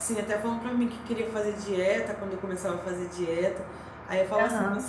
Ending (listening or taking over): listening